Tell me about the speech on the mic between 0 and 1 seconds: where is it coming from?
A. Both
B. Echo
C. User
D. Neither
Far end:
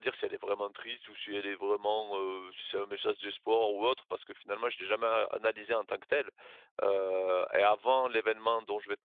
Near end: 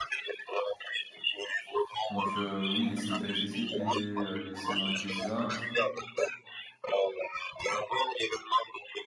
B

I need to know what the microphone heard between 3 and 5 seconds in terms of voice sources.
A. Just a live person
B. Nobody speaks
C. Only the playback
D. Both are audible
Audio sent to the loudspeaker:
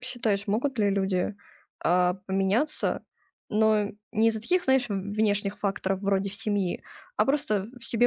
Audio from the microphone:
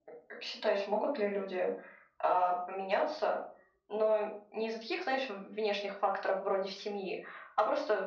C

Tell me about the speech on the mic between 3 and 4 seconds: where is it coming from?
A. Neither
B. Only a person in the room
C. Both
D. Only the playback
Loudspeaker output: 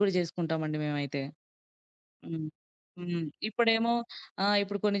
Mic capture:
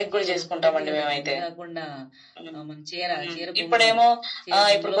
C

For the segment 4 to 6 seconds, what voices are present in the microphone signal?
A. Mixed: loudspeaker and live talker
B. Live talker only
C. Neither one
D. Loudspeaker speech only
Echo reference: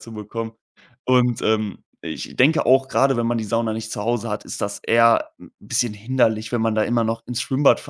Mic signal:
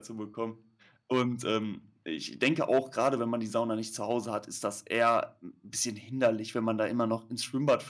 D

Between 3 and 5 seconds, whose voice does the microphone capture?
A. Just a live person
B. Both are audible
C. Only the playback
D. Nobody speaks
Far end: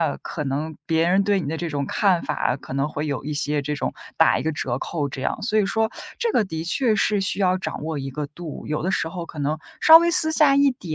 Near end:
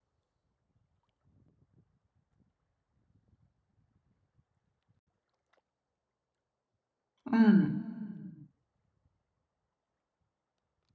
D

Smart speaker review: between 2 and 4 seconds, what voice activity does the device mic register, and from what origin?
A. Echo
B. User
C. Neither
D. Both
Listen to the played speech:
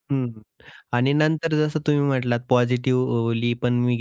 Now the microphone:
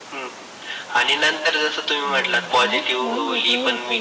D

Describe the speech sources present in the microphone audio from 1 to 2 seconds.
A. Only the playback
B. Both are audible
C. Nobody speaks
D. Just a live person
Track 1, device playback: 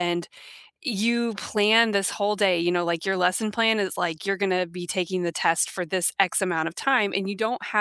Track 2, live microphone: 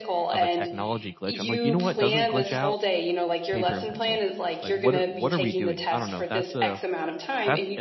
B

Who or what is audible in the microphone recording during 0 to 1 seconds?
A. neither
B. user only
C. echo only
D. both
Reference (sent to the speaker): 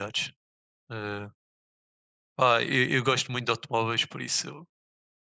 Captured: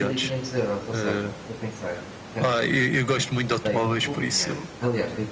D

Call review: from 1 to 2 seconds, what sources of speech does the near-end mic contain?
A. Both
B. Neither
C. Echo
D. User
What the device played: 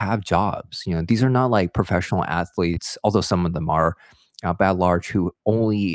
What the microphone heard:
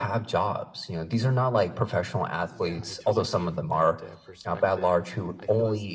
C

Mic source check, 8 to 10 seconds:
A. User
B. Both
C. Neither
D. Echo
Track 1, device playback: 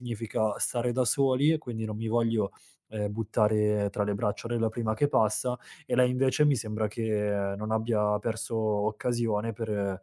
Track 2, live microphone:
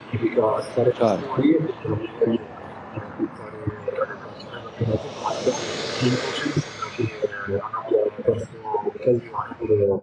D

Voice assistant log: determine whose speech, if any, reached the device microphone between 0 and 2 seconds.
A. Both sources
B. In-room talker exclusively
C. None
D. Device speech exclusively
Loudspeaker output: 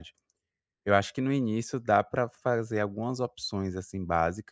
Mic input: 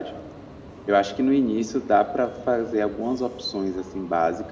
D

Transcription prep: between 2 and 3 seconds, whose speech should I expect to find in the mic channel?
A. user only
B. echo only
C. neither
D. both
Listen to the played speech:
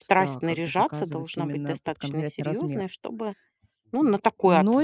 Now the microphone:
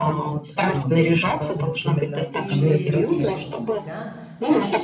D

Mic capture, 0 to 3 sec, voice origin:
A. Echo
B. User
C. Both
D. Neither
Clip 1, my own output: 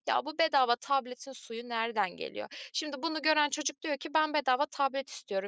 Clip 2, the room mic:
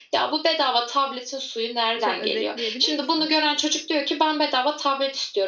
C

